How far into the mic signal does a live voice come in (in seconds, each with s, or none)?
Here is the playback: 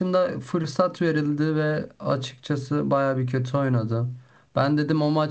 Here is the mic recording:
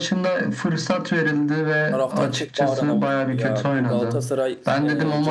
1.9 s